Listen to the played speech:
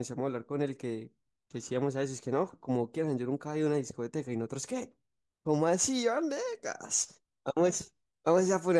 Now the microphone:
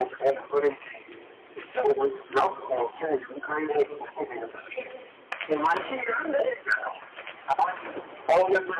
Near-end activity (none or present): none